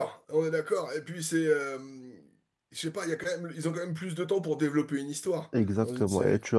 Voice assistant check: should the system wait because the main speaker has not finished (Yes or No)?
No